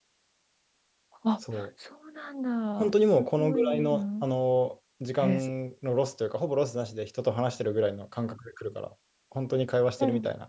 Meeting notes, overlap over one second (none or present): present